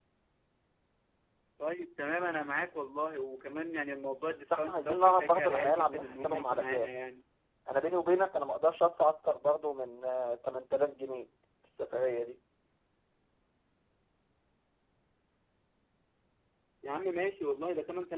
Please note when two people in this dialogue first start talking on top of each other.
4.5 s

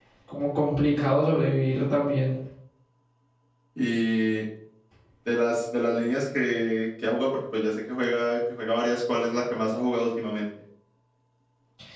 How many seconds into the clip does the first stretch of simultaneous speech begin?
none

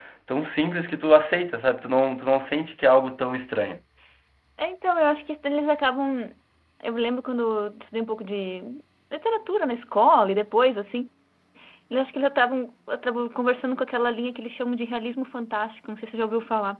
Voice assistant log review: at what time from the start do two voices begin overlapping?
none

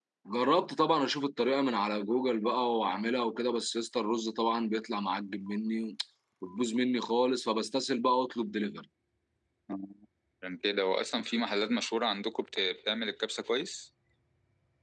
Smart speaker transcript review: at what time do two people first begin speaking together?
none

